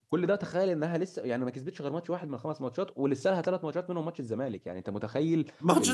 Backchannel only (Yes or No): No